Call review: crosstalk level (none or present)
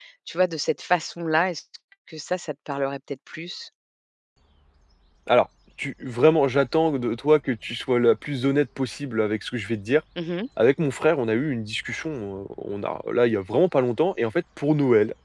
none